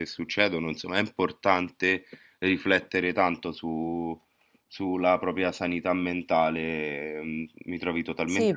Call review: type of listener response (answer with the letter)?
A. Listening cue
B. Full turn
B